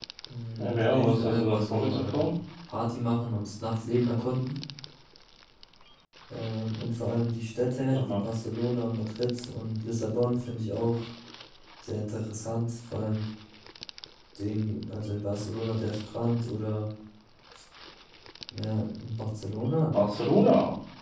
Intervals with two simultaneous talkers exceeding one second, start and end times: 0.6-2.3

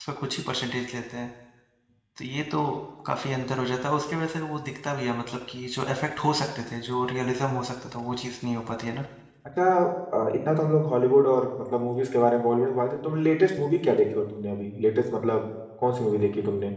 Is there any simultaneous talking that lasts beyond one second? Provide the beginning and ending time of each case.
none

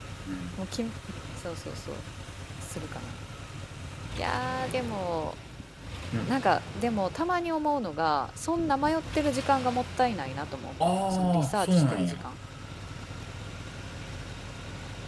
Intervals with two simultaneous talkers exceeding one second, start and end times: 10.8-12.2

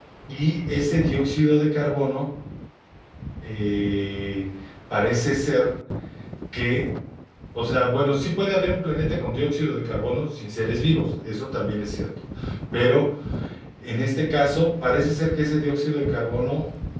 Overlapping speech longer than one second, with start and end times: none

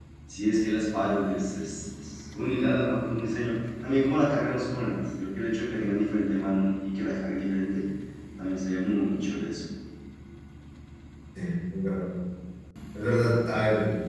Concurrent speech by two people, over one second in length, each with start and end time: none

